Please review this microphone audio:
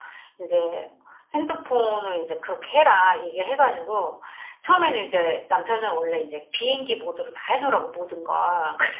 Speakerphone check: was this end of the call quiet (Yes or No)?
Yes